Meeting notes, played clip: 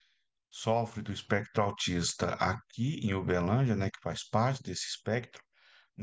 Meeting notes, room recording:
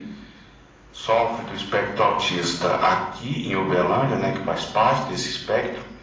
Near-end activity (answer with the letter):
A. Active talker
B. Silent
B